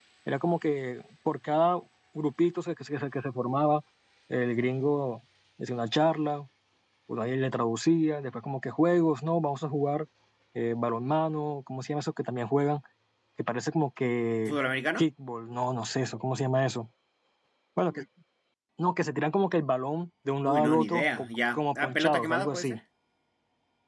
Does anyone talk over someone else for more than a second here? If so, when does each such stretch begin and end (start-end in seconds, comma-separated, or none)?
20.4-22.8